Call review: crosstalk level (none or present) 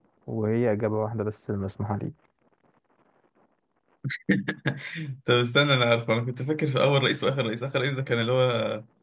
none